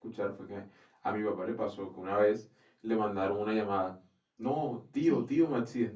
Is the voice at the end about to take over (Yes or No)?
No